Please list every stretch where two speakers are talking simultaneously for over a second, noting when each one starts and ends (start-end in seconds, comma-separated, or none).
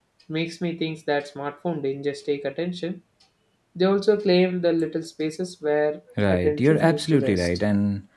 6.3-7.5